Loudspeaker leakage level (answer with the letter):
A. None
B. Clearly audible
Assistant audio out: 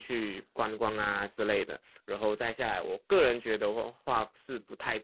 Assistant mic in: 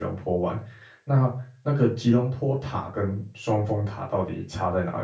A